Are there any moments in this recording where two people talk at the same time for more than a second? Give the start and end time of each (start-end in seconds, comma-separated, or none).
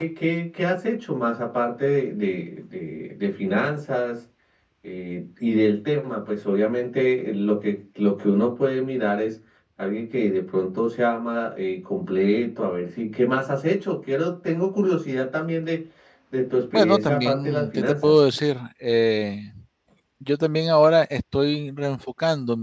16.7-18.1